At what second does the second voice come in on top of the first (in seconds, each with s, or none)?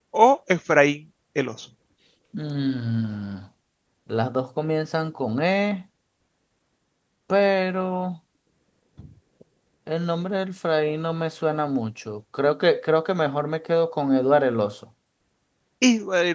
none